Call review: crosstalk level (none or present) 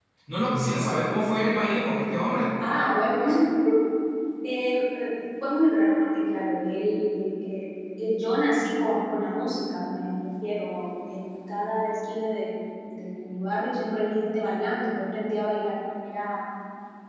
none